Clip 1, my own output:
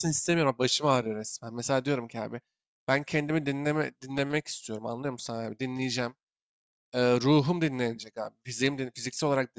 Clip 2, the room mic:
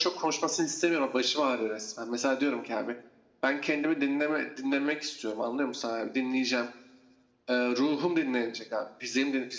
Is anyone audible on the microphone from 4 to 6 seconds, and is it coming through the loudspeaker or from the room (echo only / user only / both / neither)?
echo only